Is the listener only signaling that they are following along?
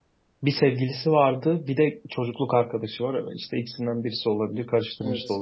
No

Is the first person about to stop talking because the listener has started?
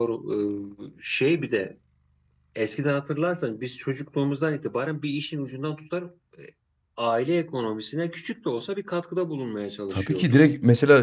Yes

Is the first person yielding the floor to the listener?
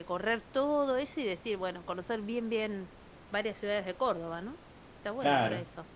Yes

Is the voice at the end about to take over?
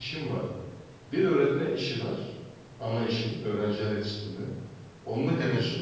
No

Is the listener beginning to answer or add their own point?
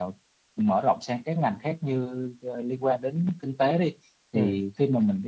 No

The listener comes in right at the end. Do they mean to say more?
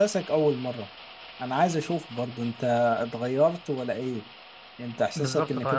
Yes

